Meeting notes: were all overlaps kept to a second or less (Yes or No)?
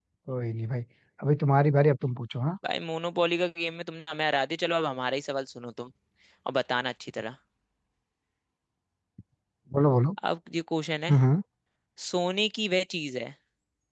Yes